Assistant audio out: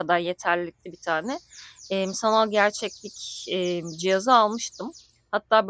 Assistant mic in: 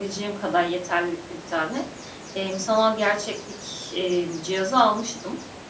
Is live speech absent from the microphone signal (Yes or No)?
Yes